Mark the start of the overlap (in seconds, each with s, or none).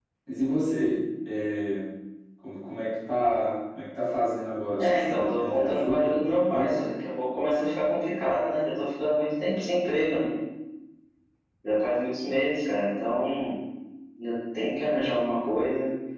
4.8 s